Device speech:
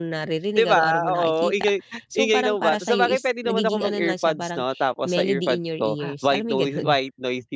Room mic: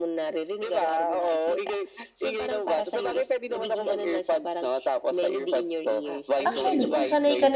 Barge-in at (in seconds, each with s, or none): 6.5 s